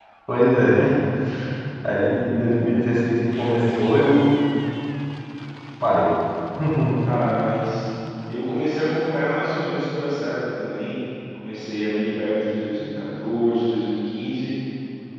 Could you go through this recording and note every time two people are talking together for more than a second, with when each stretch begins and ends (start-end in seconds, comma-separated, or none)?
none